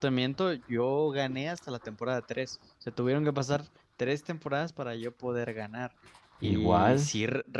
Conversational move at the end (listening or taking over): listening